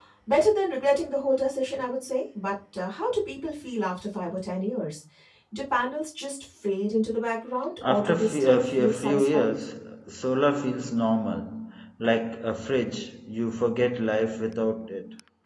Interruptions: present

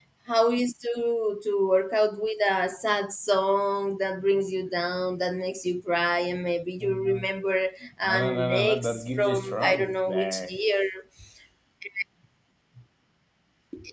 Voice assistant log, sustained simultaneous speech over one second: present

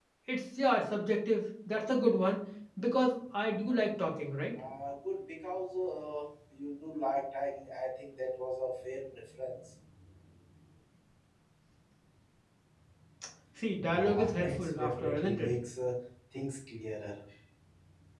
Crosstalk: present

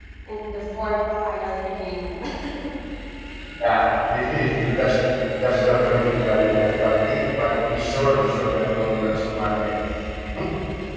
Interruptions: none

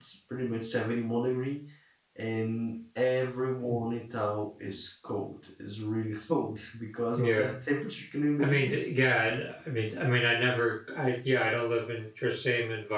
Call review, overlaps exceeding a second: none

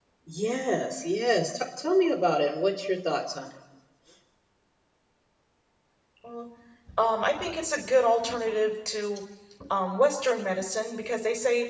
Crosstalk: none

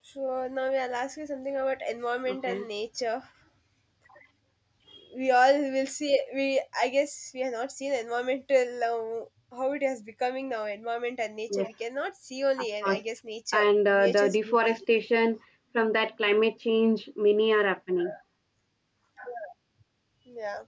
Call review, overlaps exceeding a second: present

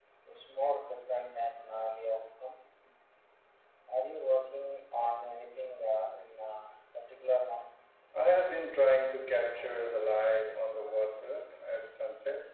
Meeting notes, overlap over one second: none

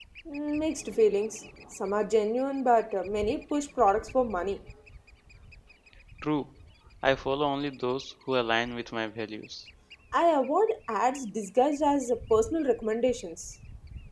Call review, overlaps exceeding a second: none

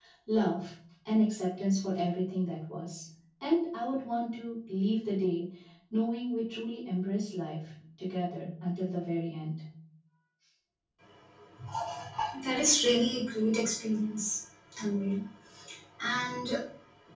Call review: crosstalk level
none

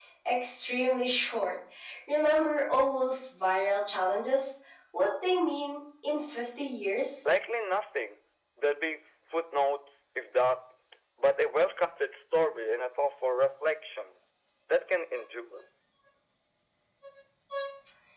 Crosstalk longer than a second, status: none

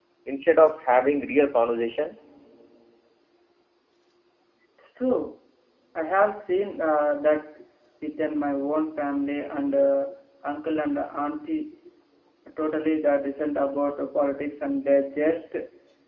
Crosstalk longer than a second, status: none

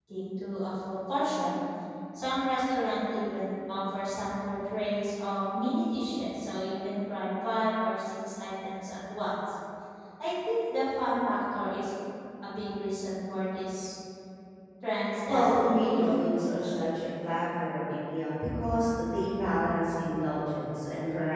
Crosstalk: present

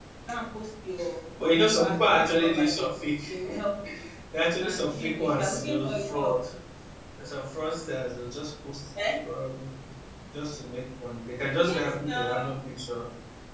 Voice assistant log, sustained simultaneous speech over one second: present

